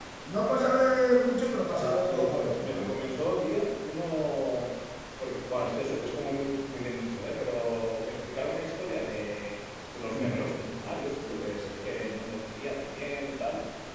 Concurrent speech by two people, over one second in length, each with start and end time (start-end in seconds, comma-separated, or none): 1.8-3.1